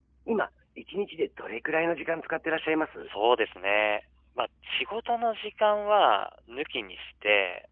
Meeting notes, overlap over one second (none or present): none